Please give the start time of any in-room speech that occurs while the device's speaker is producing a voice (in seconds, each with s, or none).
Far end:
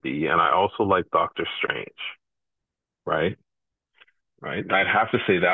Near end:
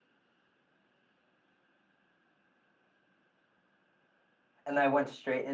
4.6 s